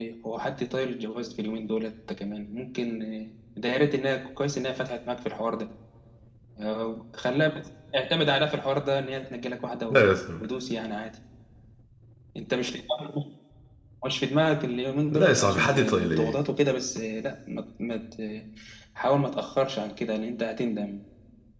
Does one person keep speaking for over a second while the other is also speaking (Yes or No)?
Yes